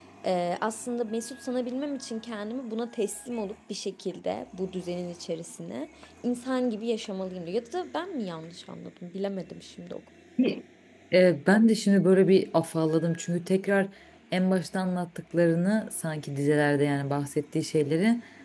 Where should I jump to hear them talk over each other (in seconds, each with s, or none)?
none